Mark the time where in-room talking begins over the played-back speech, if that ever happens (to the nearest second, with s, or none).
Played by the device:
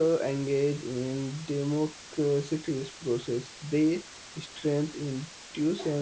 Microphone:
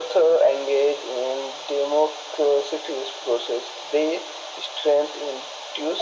none